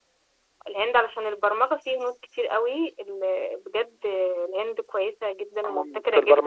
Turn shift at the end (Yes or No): Yes